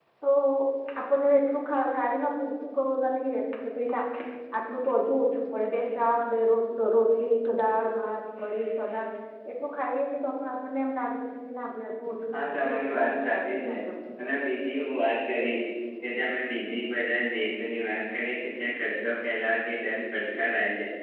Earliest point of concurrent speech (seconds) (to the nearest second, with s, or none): 12 s